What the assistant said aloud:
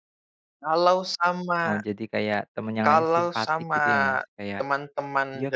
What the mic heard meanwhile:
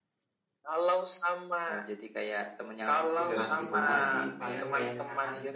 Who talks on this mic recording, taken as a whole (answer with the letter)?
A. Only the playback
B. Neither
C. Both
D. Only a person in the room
C